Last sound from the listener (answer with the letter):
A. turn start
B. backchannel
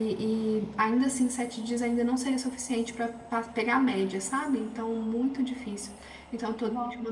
B